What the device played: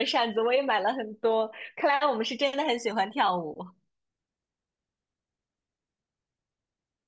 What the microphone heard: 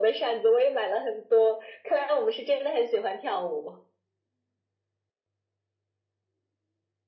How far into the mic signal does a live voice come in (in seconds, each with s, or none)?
none